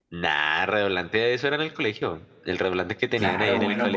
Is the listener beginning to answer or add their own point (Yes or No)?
Yes